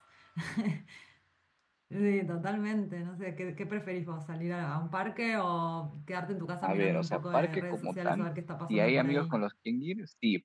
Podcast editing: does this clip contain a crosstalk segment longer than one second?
Yes, from 6.6 s

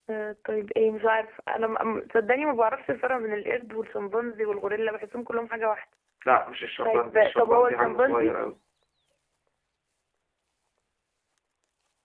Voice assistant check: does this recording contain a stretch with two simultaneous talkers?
Yes, from 6.8 s

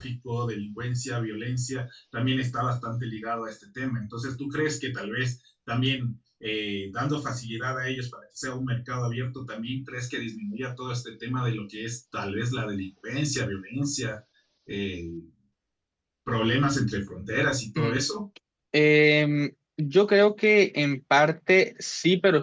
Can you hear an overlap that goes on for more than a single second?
No

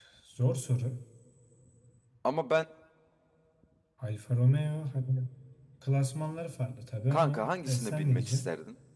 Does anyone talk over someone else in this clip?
Yes, from 7.1 s

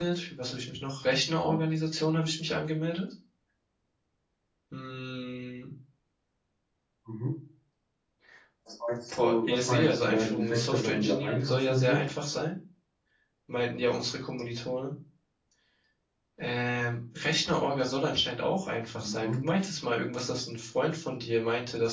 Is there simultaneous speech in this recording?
Yes, from 9.2 s

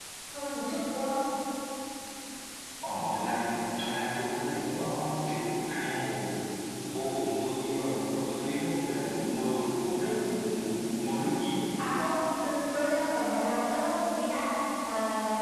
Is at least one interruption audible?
No

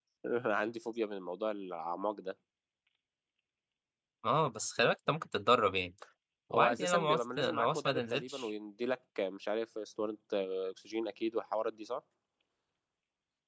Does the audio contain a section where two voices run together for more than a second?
Yes, from 6.5 s

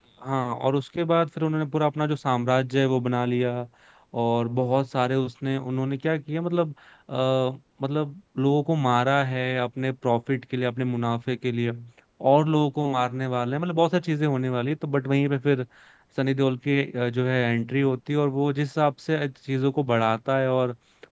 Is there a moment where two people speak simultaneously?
No

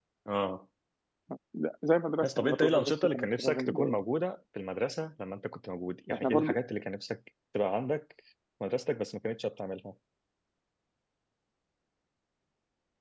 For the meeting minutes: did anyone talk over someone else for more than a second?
Yes, from 2.2 s

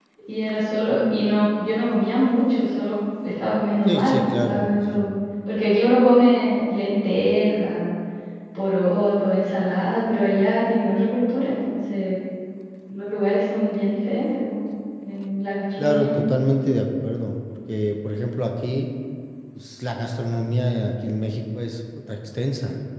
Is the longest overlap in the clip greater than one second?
Yes, from 3.9 s

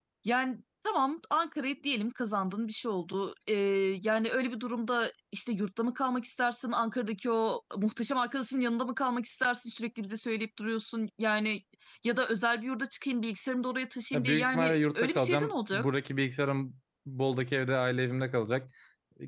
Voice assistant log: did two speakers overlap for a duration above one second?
Yes, from 14.1 s

